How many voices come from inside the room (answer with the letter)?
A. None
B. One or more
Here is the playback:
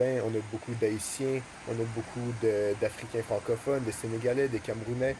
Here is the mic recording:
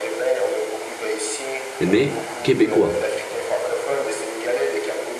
B